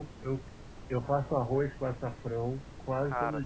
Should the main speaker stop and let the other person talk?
No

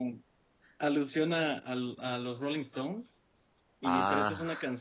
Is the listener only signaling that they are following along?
Yes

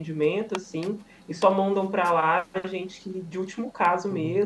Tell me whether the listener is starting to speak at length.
Yes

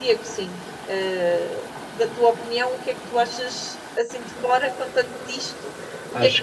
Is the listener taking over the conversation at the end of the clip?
Yes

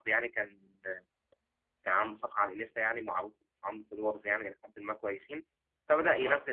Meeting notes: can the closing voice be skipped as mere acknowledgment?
Yes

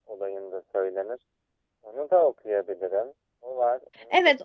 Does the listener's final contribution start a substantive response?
Yes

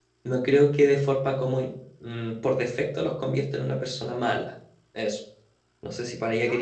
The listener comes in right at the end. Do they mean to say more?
Yes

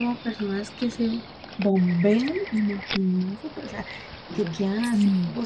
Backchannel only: Yes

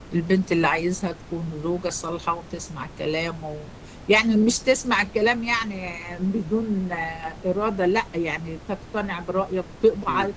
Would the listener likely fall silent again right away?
Yes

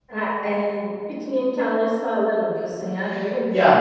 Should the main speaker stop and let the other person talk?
Yes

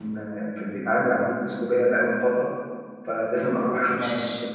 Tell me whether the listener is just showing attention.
Yes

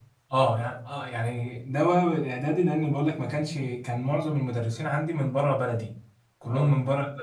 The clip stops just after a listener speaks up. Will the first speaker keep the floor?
Yes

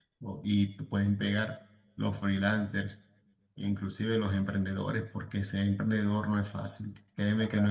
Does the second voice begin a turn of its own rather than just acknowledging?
No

